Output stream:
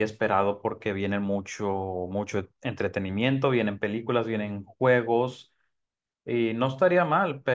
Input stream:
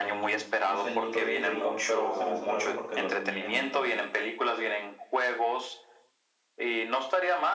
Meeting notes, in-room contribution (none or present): present